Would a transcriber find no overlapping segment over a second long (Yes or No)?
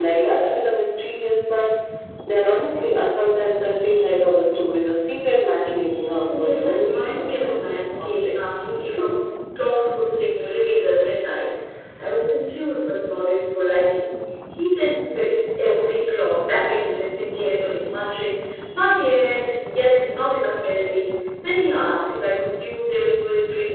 No